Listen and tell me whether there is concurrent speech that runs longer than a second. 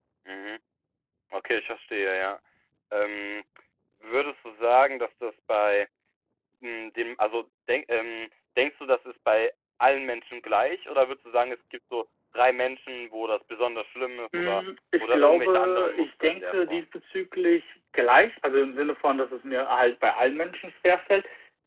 Yes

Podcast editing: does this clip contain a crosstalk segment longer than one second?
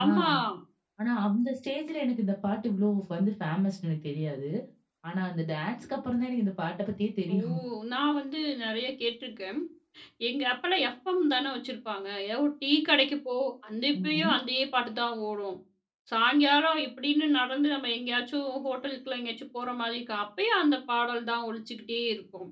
No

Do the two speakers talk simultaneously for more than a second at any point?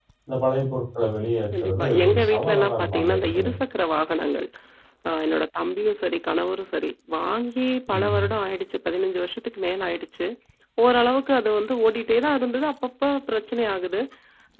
Yes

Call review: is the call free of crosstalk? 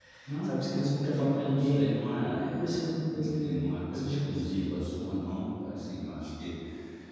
No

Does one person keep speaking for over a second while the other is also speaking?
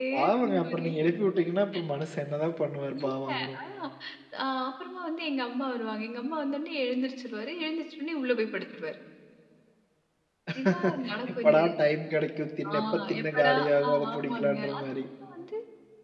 Yes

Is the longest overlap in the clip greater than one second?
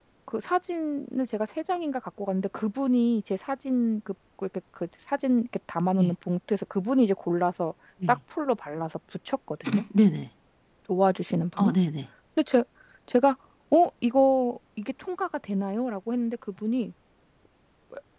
No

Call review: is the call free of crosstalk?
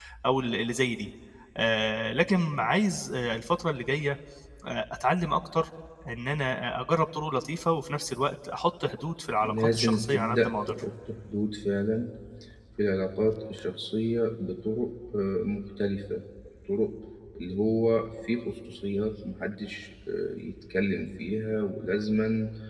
No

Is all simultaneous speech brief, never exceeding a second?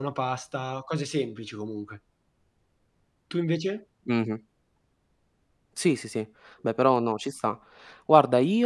Yes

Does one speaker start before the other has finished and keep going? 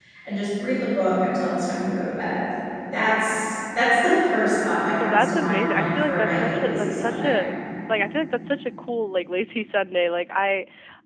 Yes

